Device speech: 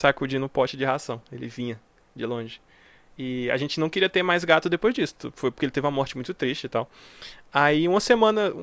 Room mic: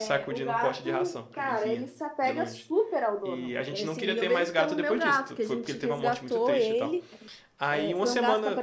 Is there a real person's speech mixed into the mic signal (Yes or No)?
Yes